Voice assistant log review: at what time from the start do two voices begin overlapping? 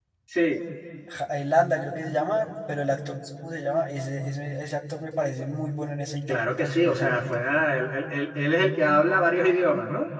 6.3 s

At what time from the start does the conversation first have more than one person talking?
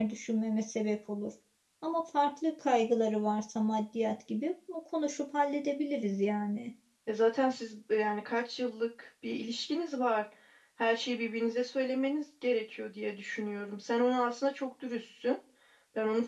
none

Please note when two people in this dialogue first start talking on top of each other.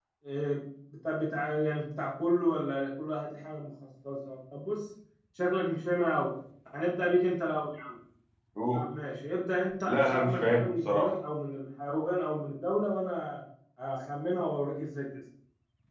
9.8 s

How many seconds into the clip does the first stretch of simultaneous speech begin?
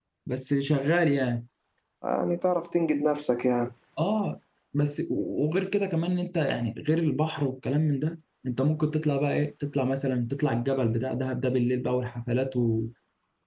none

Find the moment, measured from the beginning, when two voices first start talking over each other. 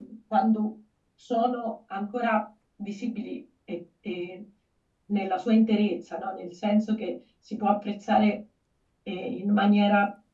none

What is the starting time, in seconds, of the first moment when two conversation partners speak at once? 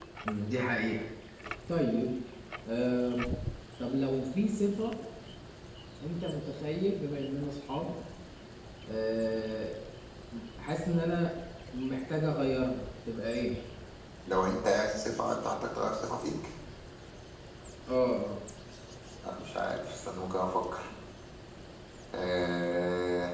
none

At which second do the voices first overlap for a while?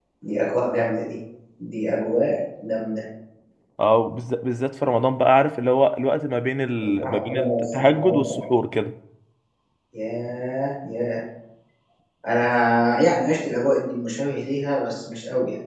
6.8 s

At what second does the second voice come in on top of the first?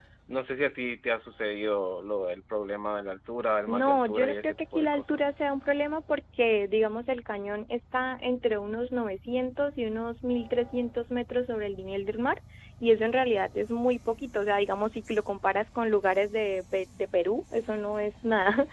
3.7 s

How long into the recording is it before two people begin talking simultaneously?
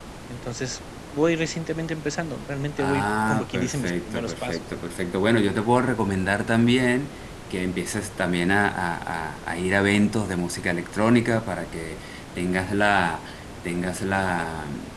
2.8 s

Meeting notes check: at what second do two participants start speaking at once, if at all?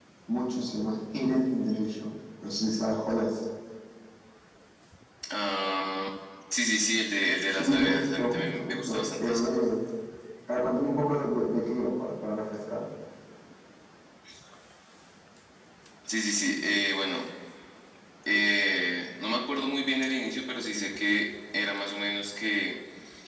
7.5 s

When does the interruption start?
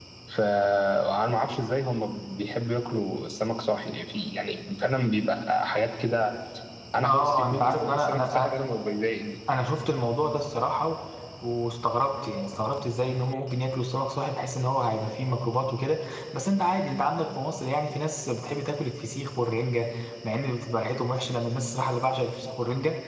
7.0 s

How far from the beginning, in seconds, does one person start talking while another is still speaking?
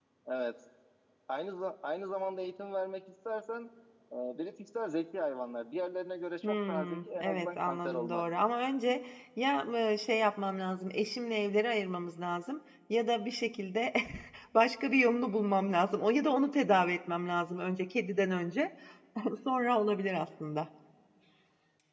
6.4 s

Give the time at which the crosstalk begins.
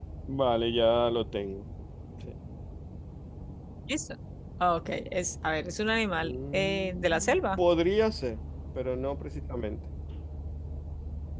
6.1 s

